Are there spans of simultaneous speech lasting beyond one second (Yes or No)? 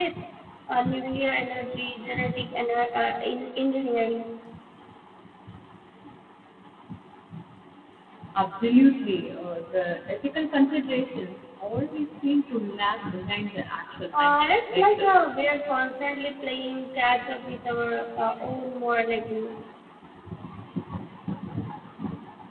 Yes